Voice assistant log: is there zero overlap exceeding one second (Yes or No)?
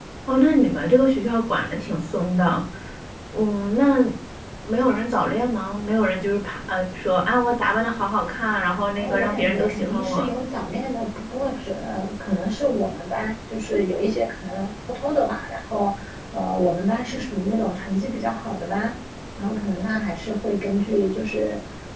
No